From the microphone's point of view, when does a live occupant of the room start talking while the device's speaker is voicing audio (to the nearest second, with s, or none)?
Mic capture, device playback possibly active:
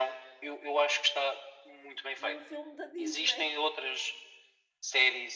2 s